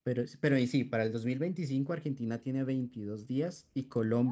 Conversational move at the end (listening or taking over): listening